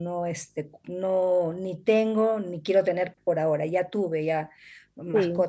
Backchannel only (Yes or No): Yes